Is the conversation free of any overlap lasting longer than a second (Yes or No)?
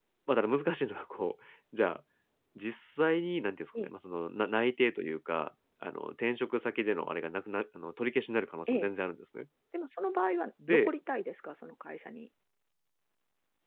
Yes